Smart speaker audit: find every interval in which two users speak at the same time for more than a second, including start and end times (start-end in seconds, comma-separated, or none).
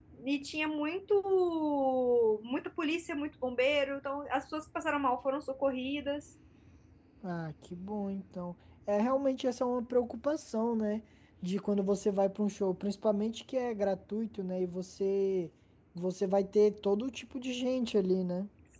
none